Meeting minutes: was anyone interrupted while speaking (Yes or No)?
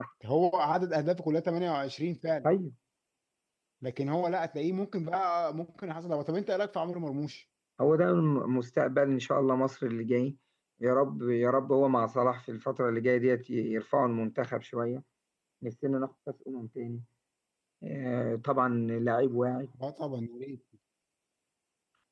No